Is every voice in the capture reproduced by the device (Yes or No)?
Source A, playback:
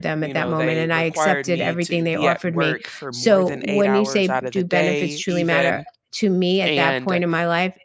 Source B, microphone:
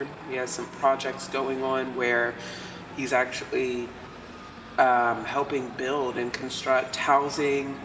No